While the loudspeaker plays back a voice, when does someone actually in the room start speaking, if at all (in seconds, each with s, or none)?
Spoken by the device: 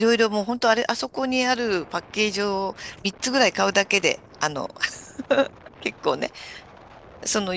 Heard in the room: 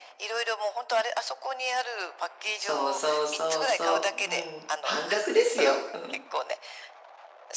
2.5 s